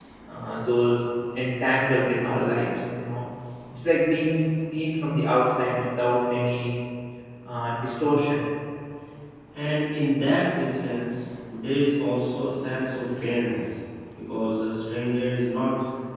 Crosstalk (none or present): none